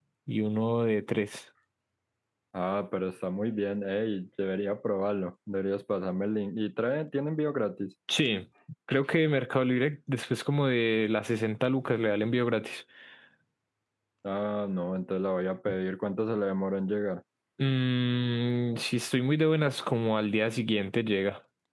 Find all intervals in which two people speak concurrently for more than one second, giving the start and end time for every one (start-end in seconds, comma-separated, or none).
none